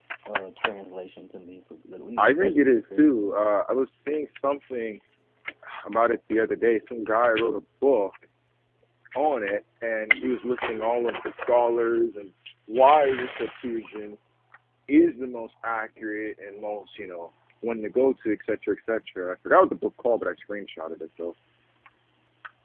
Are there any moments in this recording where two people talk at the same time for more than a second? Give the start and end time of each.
2.2-3.4

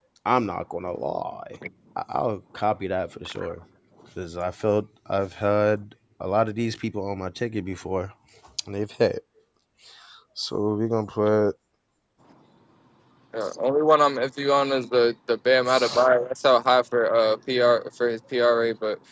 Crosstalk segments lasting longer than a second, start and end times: none

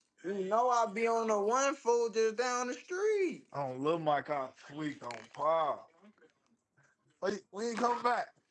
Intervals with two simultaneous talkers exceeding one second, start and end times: none

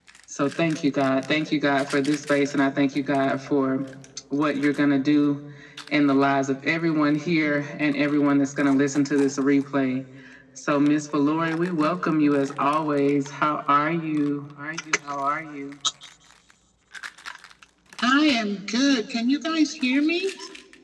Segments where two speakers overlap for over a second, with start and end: none

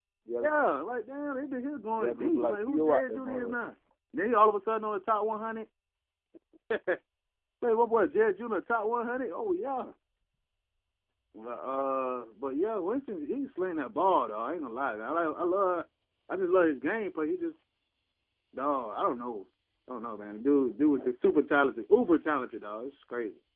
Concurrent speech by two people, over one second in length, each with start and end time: 2.0-3.6

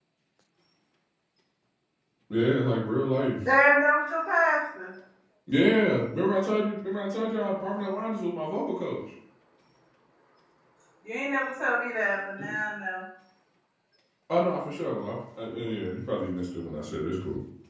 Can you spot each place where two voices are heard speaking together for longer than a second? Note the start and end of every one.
none

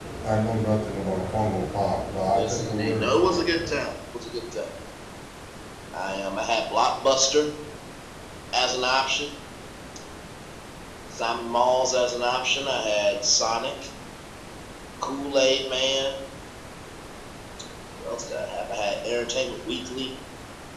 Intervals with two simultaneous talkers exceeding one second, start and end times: 2.3-3.7

